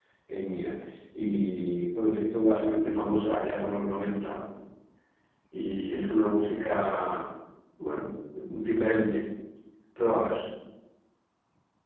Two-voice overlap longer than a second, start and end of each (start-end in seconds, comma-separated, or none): none